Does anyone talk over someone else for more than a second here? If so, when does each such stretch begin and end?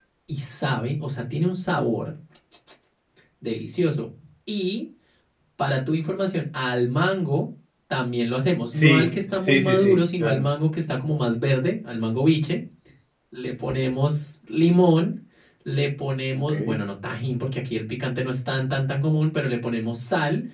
8.7-10.5

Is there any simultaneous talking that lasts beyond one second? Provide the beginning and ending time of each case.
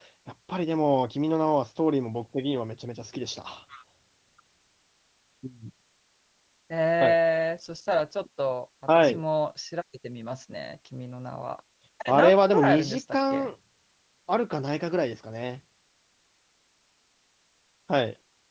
12.1-13.5

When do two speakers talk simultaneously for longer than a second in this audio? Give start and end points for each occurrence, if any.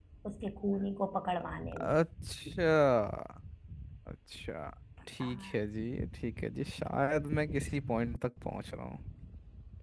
none

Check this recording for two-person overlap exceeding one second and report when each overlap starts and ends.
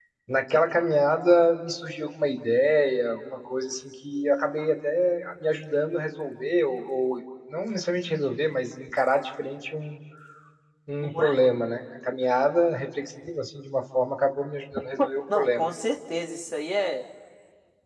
none

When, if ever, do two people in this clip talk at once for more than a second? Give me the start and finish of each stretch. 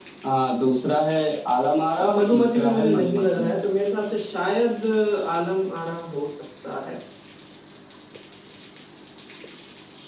2.0-3.5

